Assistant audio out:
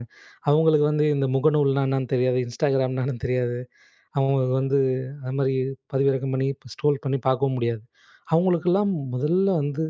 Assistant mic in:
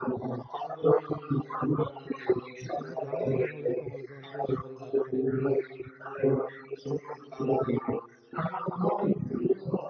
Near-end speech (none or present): present